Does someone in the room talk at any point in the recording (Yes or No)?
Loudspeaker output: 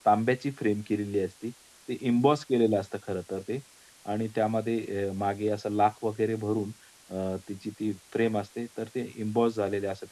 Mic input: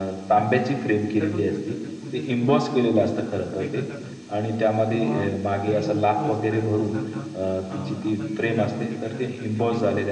Yes